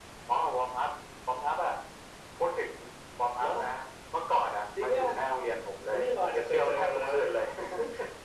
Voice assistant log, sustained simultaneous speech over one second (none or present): present